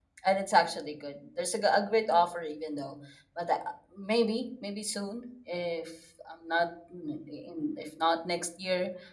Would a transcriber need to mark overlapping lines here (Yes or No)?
No